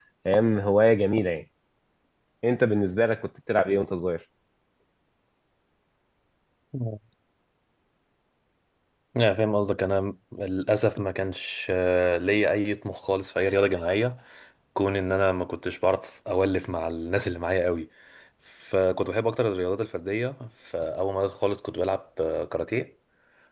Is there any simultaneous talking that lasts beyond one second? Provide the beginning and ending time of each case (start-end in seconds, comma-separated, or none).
none